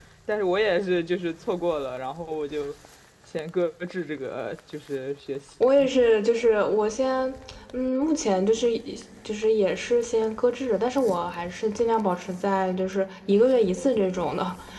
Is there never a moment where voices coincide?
Yes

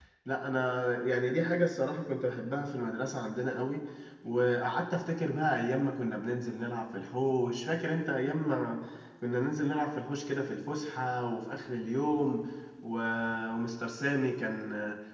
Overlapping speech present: No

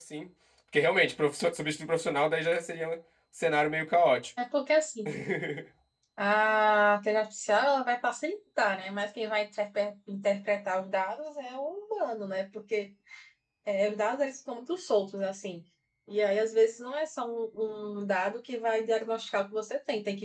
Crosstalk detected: No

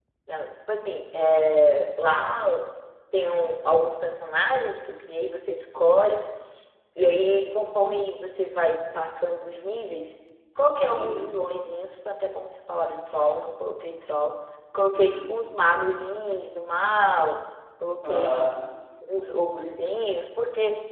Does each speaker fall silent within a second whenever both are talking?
Yes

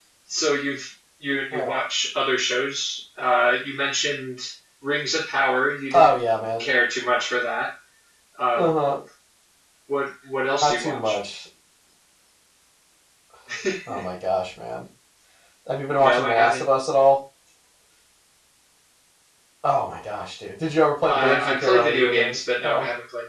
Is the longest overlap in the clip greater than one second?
Yes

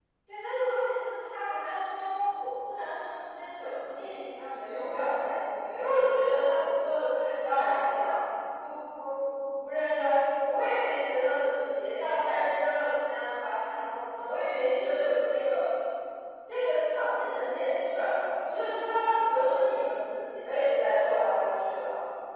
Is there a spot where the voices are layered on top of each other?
No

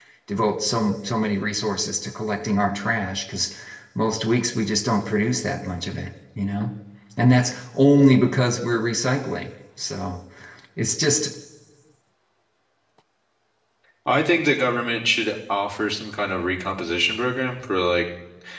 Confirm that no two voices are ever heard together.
Yes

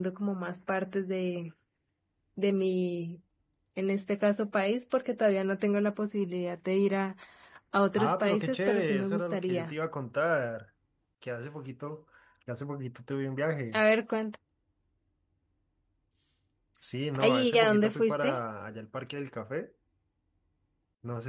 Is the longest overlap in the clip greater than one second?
Yes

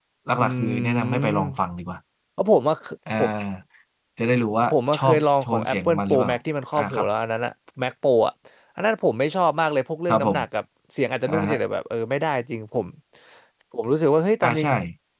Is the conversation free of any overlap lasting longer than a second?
No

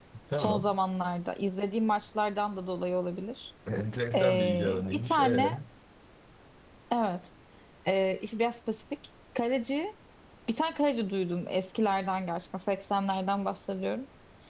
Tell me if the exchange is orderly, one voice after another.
No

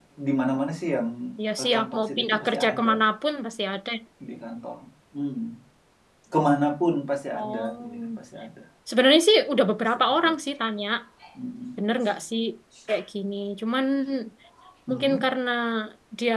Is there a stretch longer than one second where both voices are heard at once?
Yes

